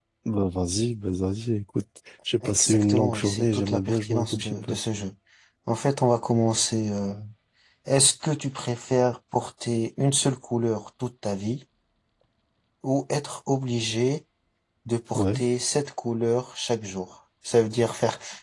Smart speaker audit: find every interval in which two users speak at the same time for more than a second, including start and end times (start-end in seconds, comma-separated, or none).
2.4-4.8